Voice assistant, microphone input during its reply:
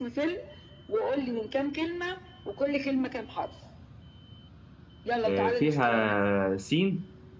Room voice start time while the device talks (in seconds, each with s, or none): 5.2 s